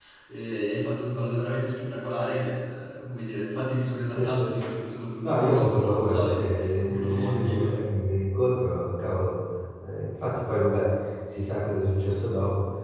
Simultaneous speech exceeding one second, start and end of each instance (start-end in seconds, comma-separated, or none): 5.2-7.8